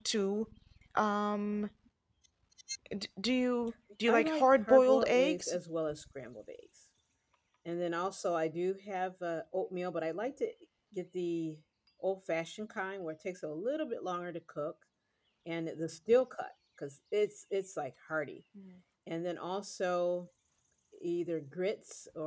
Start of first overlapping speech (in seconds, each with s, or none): 4.1 s